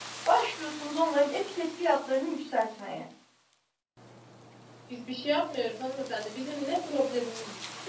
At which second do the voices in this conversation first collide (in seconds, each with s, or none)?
none